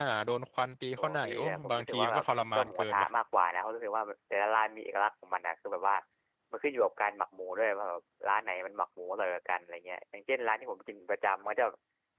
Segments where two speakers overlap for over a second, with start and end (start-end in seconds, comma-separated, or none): 1.0-3.1